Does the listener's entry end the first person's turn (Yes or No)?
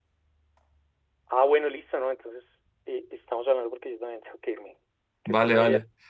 Yes